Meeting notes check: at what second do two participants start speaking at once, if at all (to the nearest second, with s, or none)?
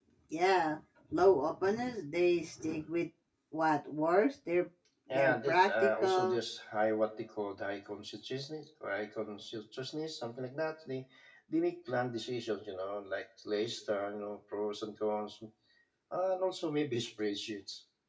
5 s